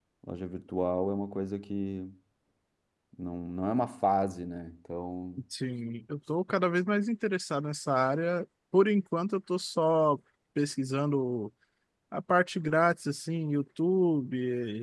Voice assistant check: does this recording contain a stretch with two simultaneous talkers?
No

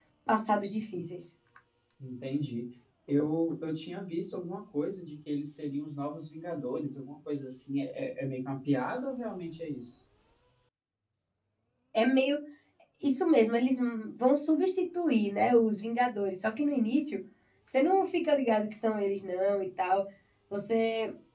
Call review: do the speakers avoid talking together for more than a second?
Yes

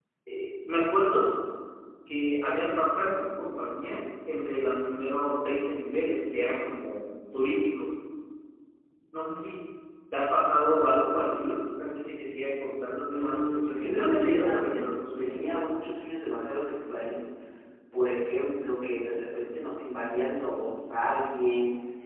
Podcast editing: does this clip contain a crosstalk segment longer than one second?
Yes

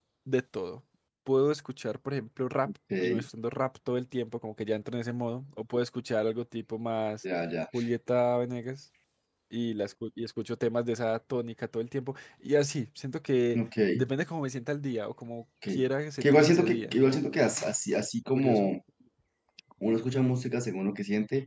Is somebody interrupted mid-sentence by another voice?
Yes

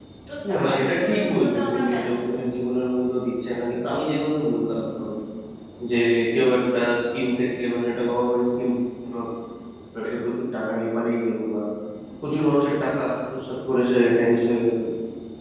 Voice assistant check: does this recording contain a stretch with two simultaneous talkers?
Yes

